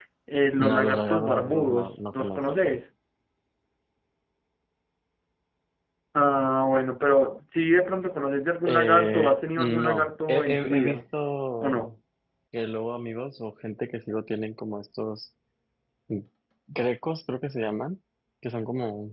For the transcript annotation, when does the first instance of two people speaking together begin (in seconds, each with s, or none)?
0.6 s